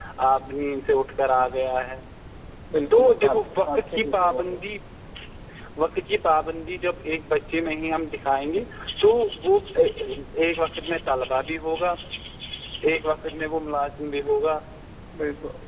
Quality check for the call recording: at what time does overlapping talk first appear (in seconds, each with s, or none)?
2.9 s